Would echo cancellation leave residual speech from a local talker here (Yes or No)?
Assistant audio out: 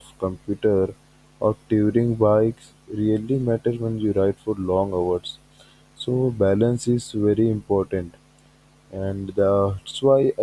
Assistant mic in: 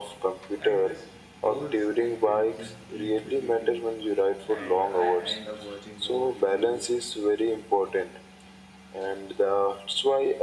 Yes